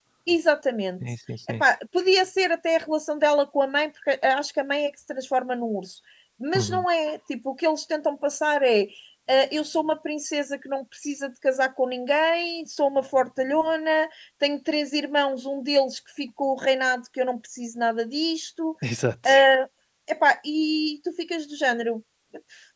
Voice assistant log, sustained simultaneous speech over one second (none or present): none